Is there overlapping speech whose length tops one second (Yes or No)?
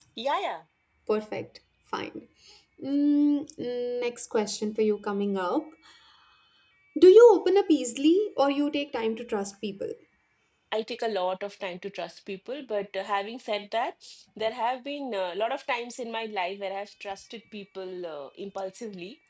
No